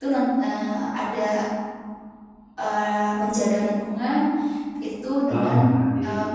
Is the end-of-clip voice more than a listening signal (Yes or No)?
No